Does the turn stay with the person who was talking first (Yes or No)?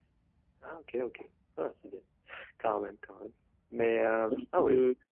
No